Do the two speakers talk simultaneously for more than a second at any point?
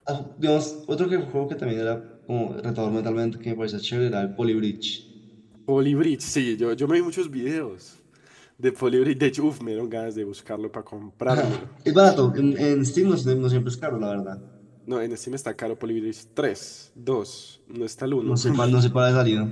No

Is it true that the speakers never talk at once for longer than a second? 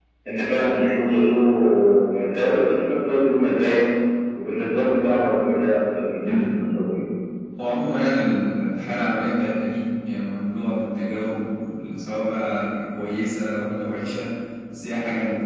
Yes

